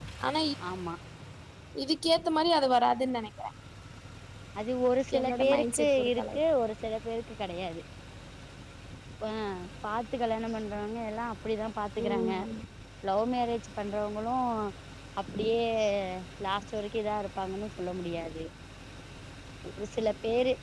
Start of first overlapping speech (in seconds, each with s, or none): 5.2 s